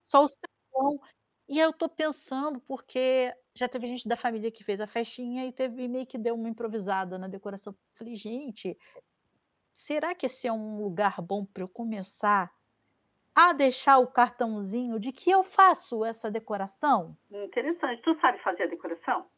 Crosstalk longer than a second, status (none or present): none